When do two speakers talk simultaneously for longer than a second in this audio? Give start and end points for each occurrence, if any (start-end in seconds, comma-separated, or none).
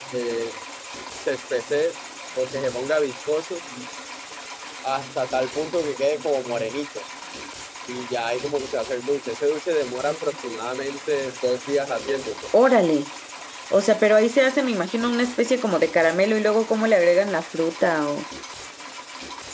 none